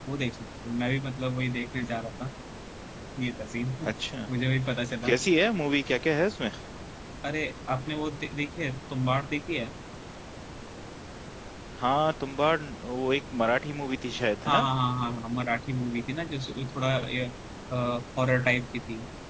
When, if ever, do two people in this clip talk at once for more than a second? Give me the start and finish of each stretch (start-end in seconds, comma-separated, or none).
none